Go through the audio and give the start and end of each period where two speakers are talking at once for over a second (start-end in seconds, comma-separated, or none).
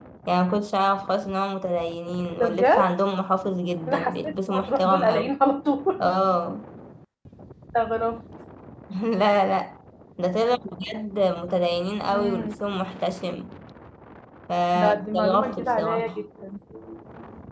3.9-5.3, 14.7-16.2